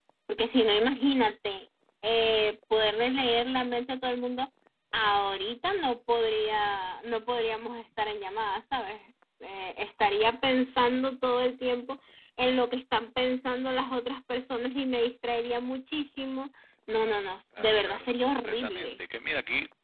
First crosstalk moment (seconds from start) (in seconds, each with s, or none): 17.6 s